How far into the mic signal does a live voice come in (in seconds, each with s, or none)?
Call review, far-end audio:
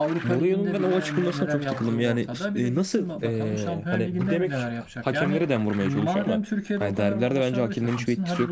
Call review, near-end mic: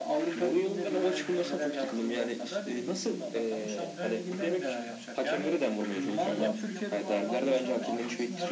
4.8 s